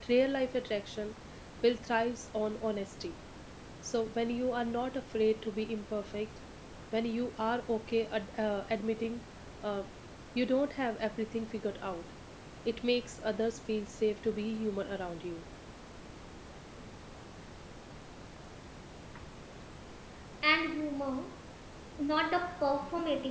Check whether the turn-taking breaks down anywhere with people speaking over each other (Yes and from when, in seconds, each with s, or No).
No